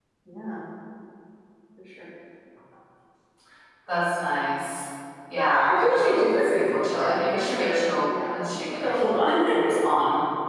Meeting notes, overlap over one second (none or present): present